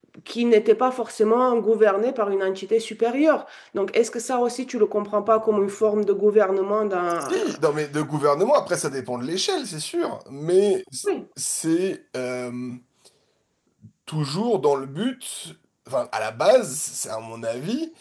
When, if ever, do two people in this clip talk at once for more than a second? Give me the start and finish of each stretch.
none

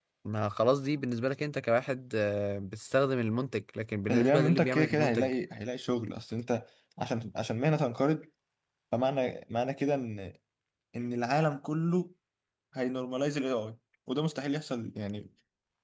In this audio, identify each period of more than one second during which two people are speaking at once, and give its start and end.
4.1-5.3

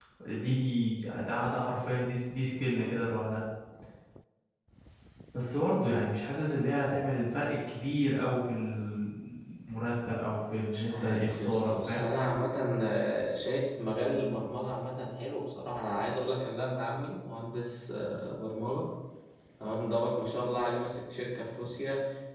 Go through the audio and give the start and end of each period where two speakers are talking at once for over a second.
10.7-12.0

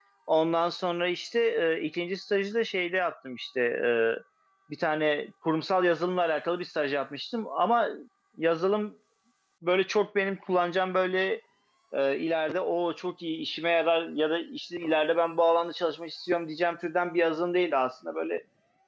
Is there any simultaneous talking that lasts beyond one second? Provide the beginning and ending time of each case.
none

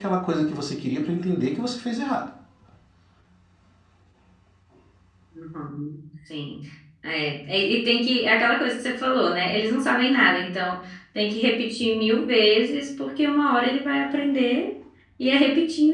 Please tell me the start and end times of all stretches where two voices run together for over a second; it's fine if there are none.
none

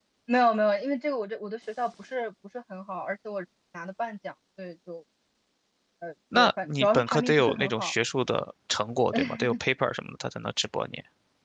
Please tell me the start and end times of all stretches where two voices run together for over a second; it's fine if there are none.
6.3-7.9

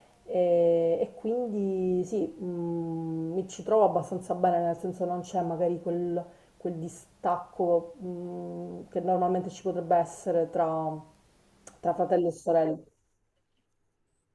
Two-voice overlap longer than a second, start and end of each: none

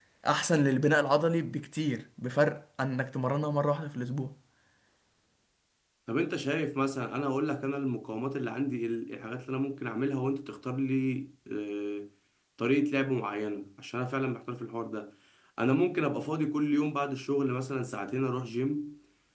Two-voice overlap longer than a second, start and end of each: none

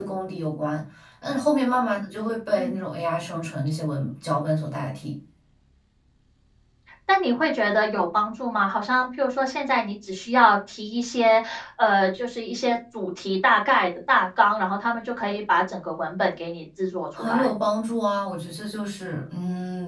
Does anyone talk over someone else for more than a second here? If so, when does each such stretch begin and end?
none

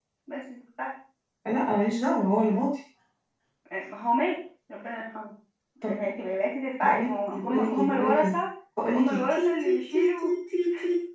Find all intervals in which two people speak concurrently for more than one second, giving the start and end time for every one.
6.8-8.3, 8.9-10.3

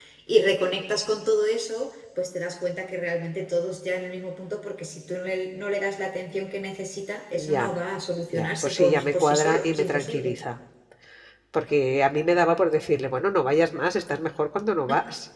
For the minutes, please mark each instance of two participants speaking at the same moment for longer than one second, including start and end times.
8.3-10.3

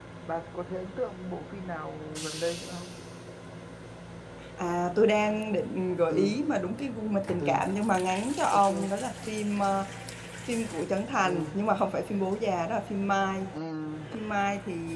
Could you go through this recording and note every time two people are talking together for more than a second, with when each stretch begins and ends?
none

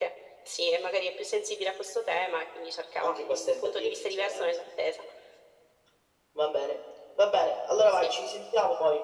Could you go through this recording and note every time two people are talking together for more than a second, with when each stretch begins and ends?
3.0-4.6

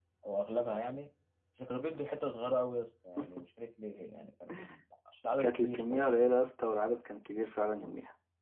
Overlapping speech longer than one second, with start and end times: none

